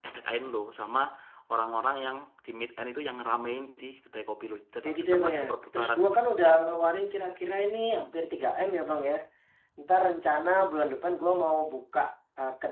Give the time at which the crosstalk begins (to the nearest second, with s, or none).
5 s